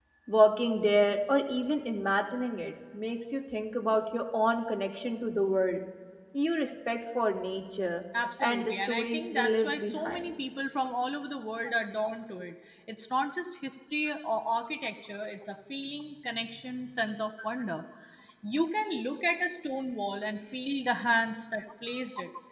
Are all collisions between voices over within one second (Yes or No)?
No